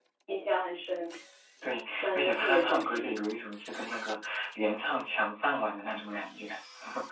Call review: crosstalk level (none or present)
present